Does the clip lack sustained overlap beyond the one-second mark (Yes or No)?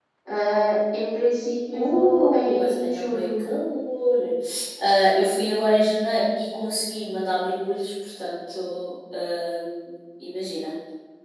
No